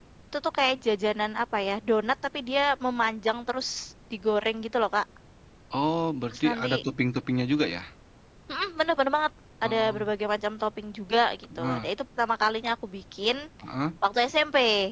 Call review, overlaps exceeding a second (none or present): none